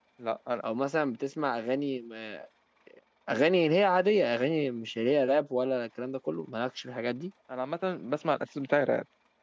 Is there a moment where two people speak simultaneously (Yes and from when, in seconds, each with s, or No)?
No